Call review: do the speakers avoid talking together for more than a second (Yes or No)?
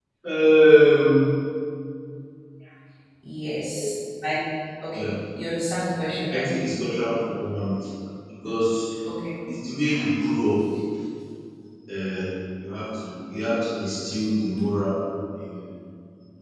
Yes